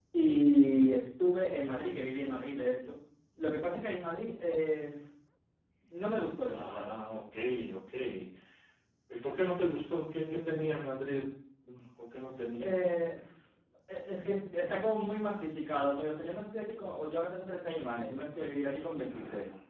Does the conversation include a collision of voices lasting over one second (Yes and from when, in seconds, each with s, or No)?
No